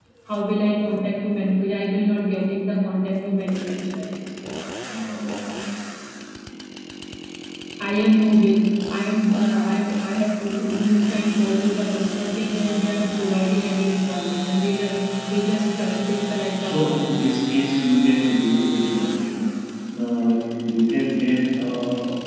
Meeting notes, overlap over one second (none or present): none